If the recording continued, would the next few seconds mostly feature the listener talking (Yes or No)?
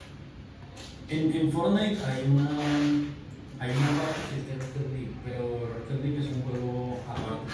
Yes